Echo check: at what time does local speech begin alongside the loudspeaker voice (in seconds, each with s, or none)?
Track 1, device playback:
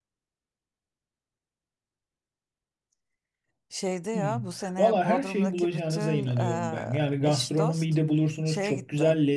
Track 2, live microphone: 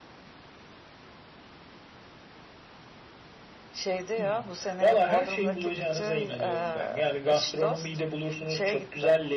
none